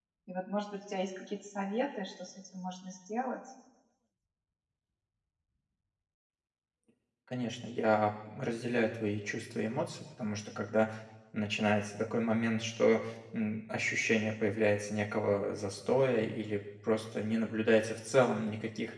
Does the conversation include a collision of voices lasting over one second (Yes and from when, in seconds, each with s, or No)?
No